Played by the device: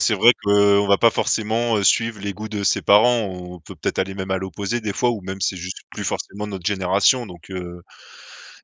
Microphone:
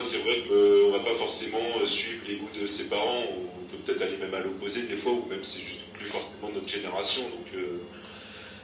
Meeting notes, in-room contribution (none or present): none